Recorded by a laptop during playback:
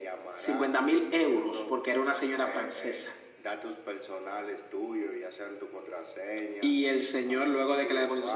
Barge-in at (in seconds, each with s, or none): none